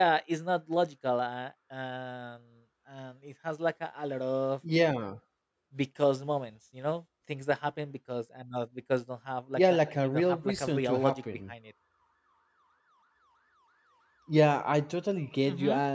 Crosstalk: present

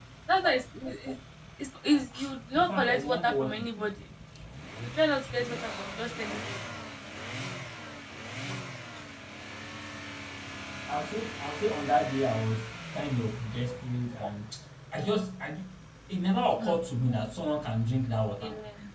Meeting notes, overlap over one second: present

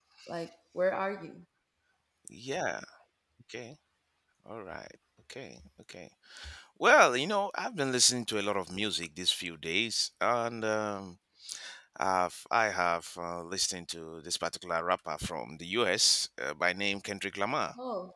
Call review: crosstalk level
none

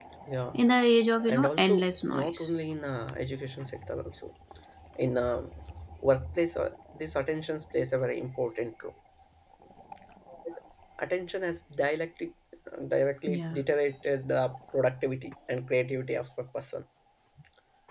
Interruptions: present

